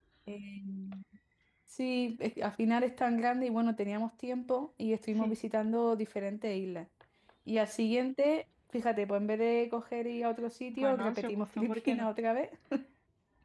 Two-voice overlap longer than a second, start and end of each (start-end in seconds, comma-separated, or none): 10.7-12.1